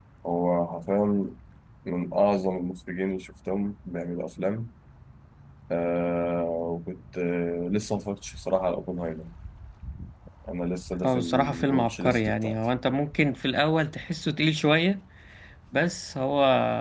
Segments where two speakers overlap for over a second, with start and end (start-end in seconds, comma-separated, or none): 11.0-12.6